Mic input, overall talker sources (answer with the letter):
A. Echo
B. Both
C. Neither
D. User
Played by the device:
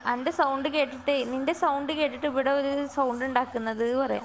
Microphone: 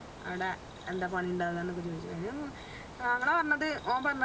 D